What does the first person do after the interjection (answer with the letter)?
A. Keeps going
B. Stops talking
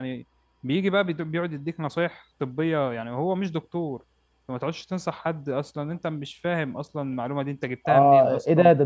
B